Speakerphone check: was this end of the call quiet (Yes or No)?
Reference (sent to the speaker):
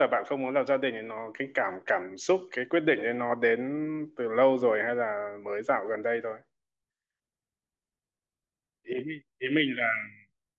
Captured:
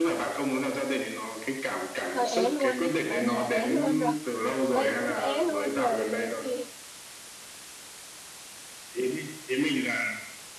No